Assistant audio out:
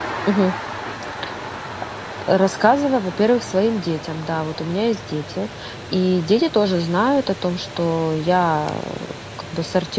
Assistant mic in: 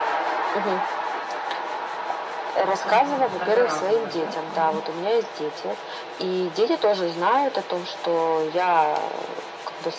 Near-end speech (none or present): present